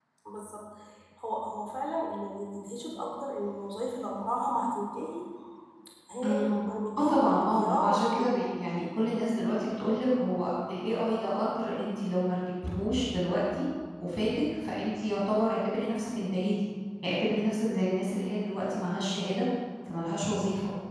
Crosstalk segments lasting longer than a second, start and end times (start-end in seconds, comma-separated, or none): 7.0-8.5